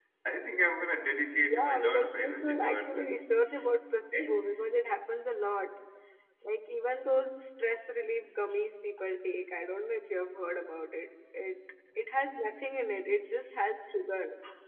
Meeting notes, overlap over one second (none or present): present